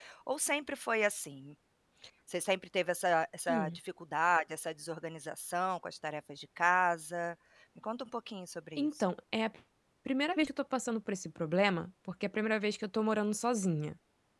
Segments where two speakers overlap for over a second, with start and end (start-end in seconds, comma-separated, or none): none